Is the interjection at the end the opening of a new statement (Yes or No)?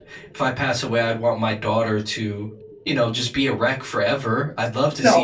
No